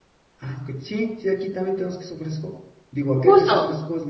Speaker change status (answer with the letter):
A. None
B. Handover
A